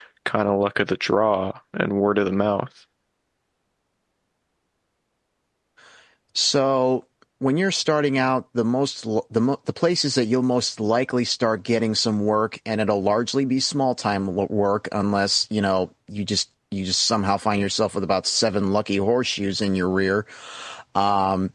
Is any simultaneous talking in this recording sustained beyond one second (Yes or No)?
No